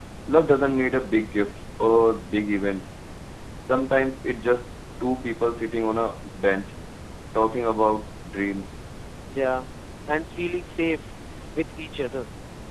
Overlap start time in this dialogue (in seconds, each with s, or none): none